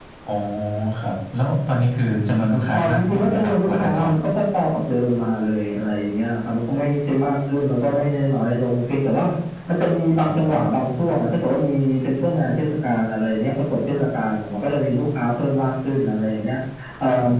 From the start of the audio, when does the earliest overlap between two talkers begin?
3 s

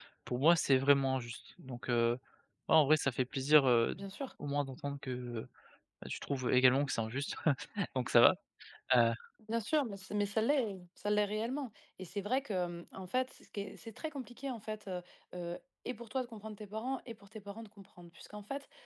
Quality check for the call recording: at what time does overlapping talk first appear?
none

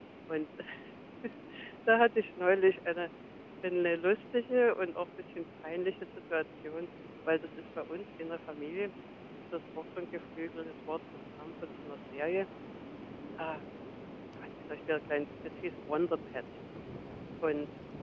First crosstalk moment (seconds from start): none

